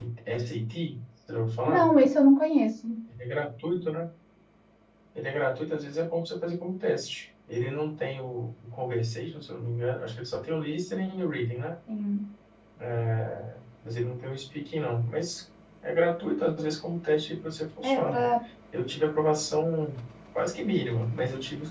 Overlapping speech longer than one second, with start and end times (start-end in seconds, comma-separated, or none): none